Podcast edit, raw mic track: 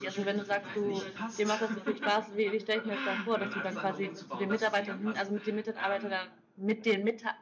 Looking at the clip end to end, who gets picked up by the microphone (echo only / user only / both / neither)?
both